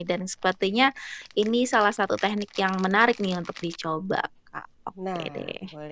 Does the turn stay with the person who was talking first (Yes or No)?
No